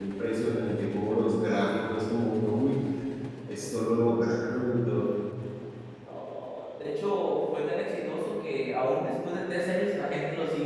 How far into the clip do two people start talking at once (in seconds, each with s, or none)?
none